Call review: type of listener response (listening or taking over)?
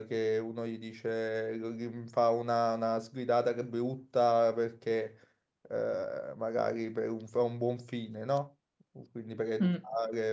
listening